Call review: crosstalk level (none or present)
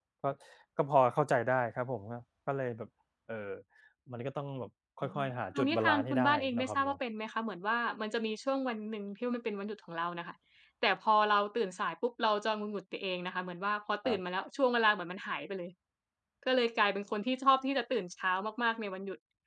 present